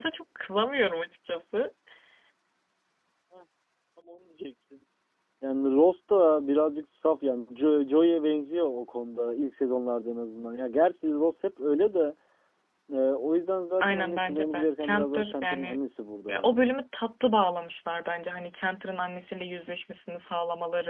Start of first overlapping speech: 14 s

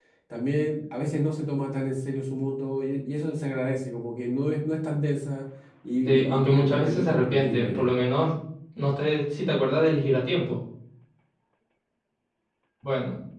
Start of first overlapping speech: 6 s

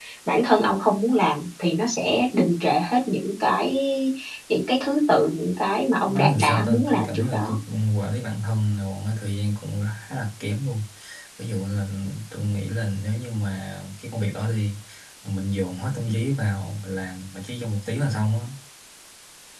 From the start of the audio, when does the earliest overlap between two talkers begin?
6 s

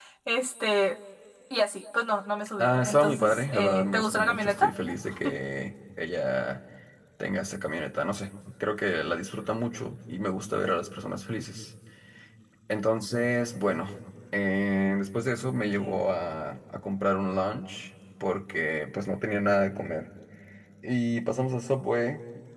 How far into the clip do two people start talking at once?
3 s

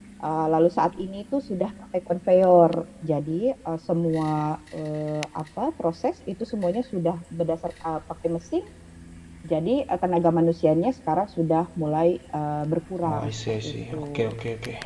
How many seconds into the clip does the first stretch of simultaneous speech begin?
13 s

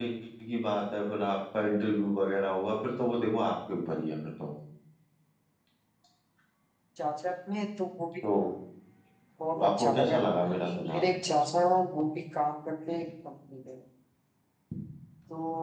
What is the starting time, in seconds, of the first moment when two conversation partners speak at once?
10 s

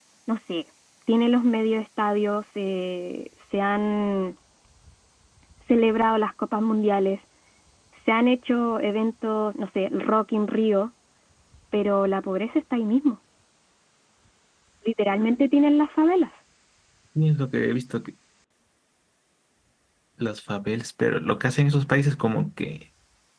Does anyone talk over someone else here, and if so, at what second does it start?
none

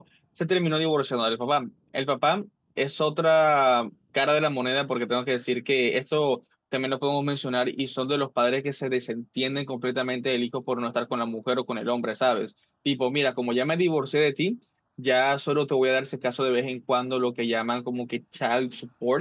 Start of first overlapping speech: none

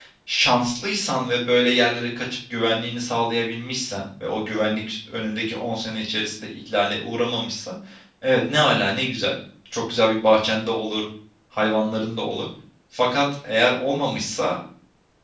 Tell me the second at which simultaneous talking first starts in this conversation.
none

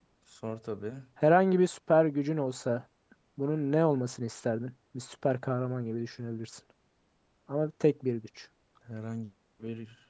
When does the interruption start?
none

